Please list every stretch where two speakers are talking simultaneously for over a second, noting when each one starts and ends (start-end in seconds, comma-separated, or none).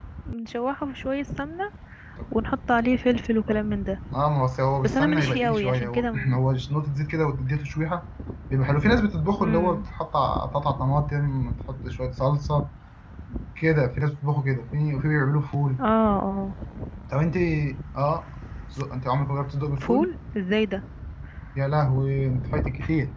4.8-6.4